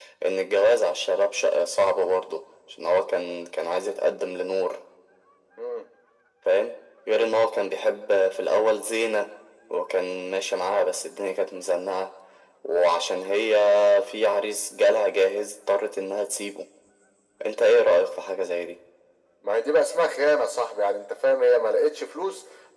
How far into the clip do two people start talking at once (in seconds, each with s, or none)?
none